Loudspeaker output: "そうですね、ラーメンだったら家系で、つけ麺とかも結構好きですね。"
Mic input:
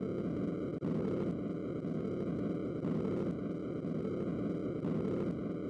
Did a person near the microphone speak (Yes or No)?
No